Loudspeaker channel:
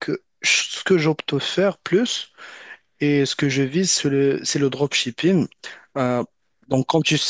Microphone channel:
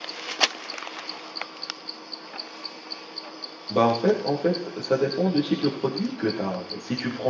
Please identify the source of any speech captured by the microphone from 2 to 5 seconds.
user only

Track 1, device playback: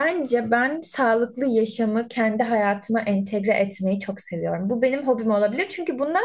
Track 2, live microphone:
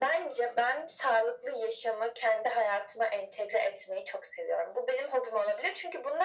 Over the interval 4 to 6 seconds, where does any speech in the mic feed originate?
echo only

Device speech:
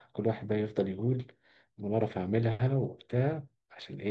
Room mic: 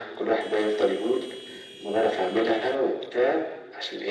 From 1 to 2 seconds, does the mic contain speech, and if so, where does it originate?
echo only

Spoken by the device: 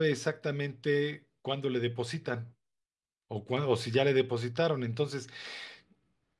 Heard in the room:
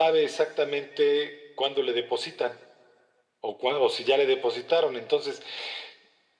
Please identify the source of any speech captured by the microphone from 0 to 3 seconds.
echo only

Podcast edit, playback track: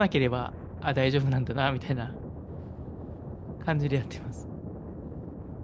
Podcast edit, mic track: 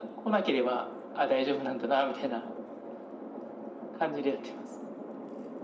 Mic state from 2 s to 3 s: echo only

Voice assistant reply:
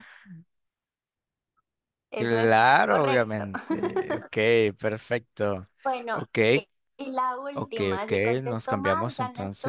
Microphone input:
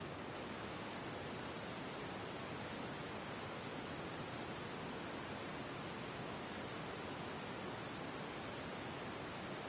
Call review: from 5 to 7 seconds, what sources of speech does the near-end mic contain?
neither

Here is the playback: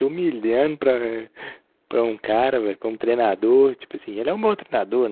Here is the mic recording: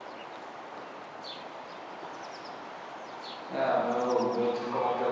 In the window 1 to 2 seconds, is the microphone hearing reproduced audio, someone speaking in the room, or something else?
neither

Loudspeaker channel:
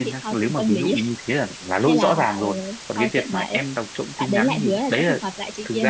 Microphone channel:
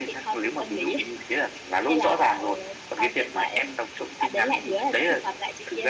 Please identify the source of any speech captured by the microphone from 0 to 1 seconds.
echo only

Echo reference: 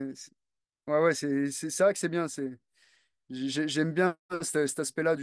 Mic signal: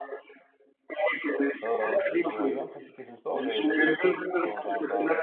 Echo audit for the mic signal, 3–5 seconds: both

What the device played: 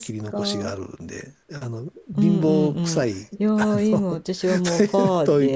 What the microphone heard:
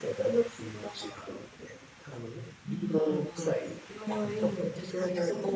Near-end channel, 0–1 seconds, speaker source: echo only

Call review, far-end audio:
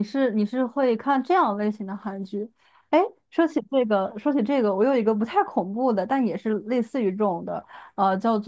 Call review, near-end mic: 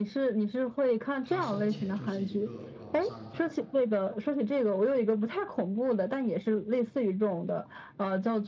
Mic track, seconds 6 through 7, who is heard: echo only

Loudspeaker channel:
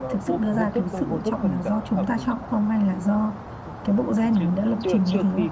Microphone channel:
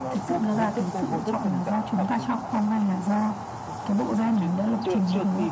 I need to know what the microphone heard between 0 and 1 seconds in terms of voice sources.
echo only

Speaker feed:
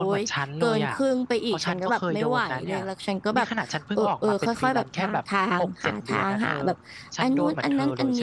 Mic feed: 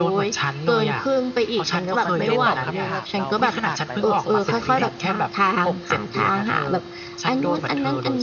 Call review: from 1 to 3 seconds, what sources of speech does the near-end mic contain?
both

